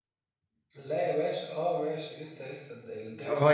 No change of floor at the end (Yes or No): No